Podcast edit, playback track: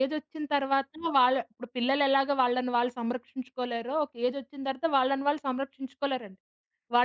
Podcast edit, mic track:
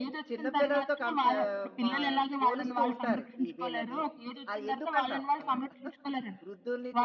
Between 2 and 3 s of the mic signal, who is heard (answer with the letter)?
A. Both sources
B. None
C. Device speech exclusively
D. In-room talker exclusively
A